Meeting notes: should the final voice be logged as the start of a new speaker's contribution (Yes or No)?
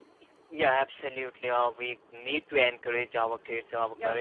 No